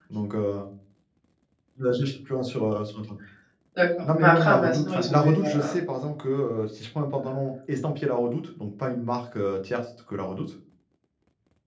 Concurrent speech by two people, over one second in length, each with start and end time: 4.0-5.7

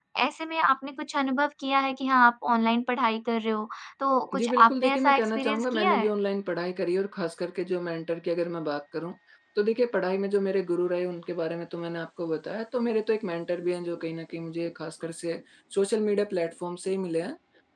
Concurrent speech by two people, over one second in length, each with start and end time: 4.4-6.1

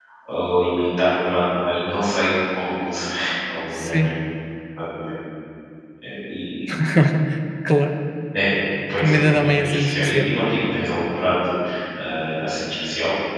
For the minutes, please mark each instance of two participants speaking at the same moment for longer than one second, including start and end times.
9.0-10.3

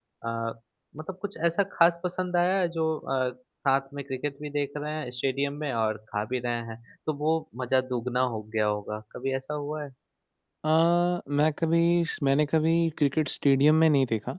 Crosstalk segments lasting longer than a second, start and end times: none

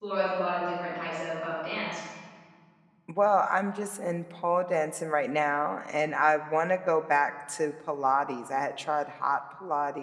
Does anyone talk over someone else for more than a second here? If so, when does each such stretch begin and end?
none

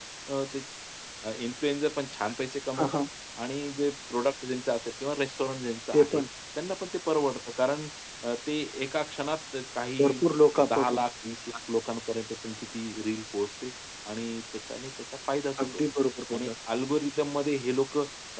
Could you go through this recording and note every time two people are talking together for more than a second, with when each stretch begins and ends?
none

